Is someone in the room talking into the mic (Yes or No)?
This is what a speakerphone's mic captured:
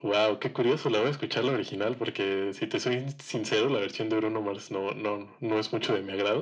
No